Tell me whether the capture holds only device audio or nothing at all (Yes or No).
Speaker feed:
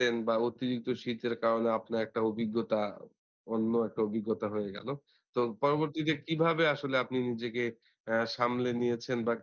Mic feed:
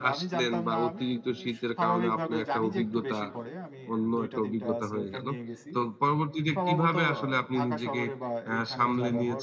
No